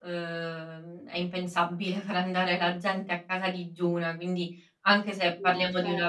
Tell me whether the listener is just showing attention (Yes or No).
Yes